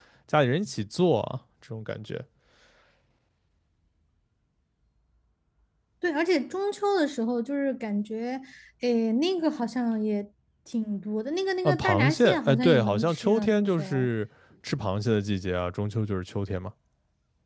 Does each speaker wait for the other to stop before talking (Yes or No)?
No